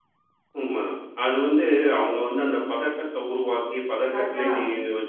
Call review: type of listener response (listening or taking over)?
listening